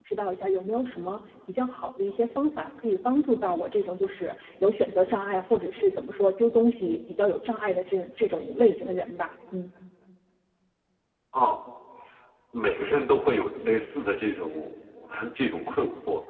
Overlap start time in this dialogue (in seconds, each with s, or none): none